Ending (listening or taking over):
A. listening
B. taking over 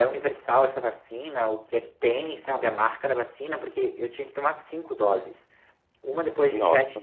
A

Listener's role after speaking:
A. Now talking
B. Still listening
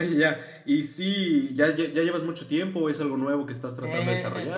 A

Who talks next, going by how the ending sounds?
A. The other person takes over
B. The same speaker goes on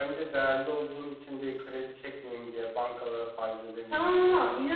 A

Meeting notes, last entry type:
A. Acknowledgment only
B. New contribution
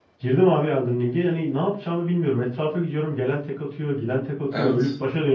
A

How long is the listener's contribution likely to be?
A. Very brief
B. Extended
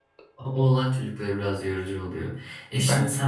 A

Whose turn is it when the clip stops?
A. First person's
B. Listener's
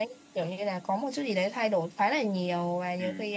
A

